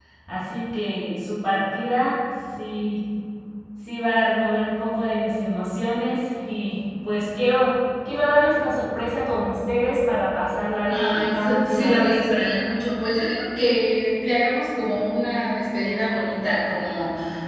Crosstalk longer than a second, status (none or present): present